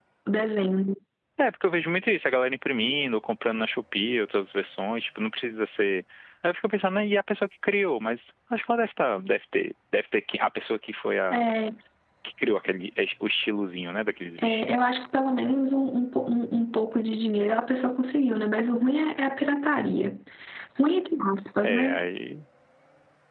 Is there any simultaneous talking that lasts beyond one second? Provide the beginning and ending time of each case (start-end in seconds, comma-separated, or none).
none